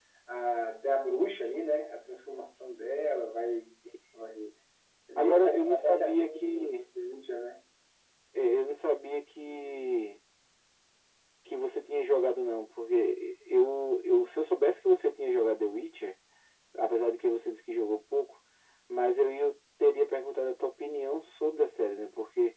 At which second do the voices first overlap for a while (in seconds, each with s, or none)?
5.2 s